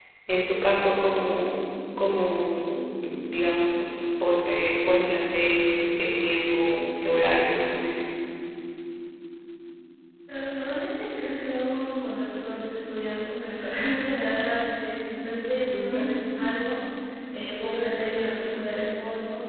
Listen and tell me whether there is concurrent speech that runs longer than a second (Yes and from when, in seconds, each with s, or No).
No